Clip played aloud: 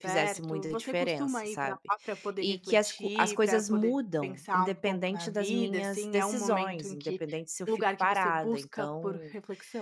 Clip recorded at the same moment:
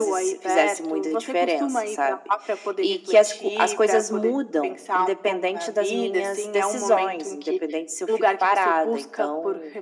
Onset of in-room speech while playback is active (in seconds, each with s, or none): none